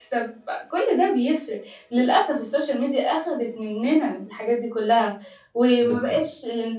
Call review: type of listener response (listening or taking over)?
listening